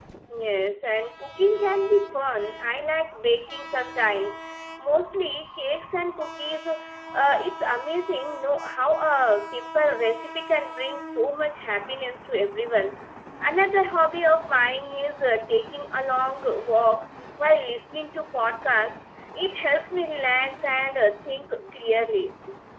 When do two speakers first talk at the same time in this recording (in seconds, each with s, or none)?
none